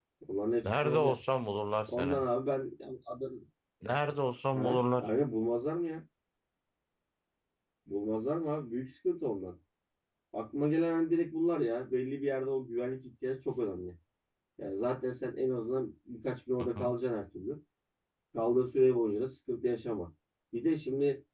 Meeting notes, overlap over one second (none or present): none